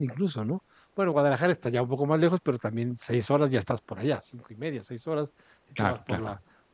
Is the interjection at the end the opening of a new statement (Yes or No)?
No